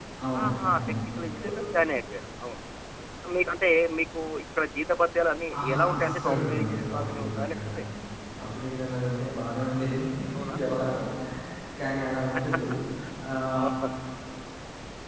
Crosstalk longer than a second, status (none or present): present